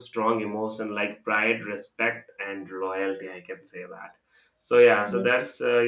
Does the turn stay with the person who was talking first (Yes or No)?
Yes